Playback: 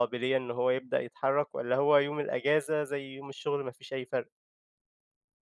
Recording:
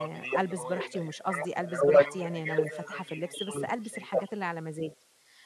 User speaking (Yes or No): Yes